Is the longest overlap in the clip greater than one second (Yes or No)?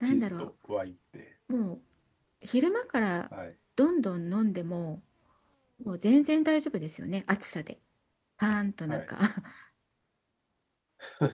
No